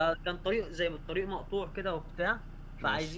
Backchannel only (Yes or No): Yes